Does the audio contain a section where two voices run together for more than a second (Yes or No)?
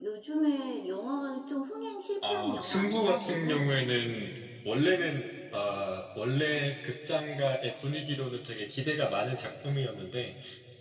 Yes